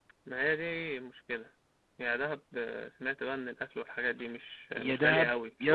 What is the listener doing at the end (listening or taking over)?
taking over